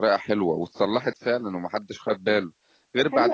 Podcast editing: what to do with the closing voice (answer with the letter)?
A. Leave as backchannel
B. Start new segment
B